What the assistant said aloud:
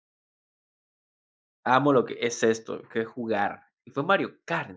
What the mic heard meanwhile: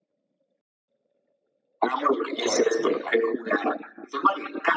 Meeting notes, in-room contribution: present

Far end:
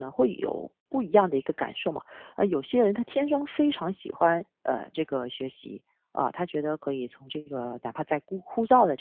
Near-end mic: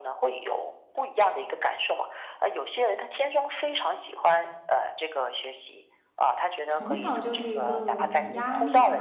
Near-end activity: present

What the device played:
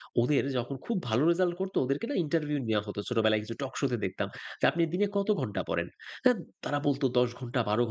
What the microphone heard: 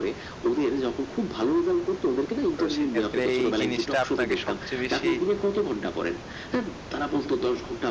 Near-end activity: present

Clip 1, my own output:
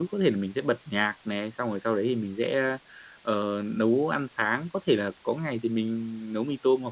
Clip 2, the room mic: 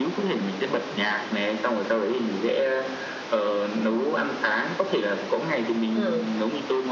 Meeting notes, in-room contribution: present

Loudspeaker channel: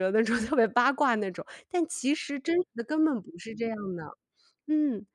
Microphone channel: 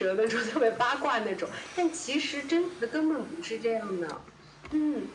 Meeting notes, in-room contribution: none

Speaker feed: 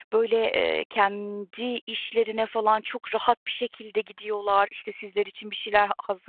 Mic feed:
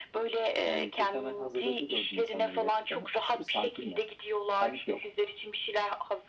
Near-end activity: present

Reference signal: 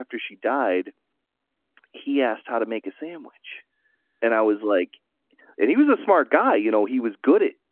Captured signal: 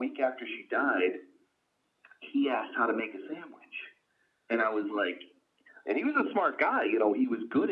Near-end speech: none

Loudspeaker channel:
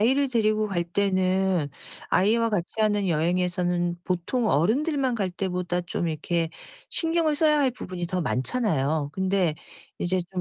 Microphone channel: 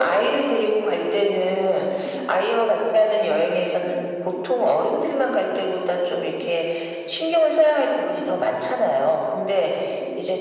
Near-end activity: none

